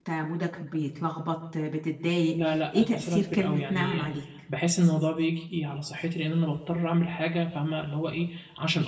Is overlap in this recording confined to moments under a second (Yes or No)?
No